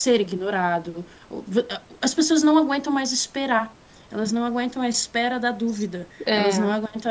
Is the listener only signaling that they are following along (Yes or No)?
Yes